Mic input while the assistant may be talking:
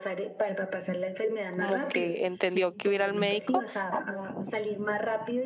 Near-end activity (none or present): present